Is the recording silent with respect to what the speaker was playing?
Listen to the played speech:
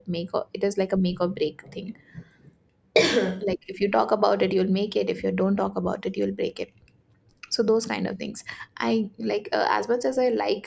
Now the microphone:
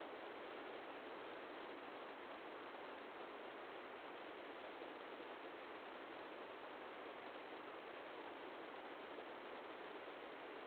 Yes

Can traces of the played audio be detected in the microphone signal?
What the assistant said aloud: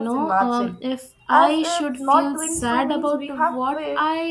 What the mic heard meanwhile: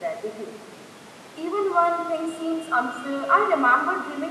No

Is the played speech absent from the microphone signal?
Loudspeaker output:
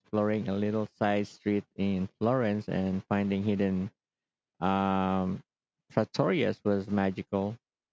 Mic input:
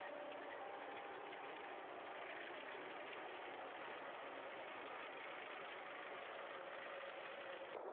Yes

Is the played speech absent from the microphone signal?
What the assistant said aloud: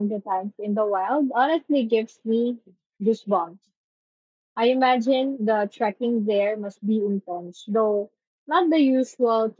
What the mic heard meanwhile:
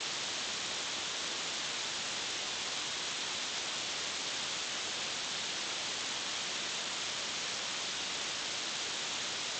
Yes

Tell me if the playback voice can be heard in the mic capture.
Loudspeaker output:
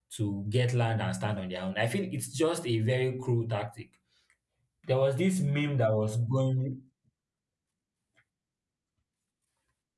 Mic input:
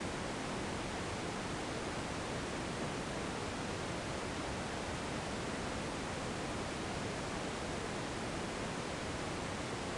No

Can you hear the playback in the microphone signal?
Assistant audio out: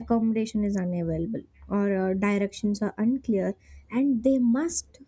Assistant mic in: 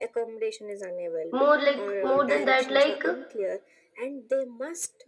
Yes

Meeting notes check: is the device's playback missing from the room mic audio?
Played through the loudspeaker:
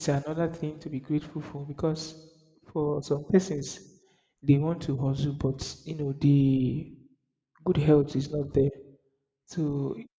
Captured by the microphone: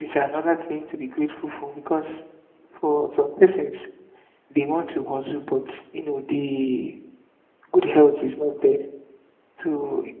No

